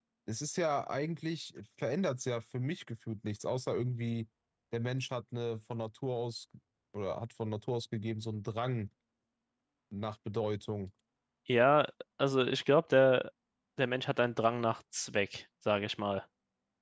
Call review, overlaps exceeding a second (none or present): none